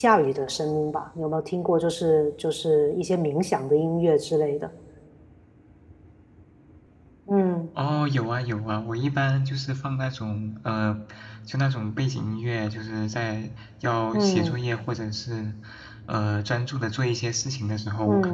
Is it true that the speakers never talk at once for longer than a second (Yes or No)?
Yes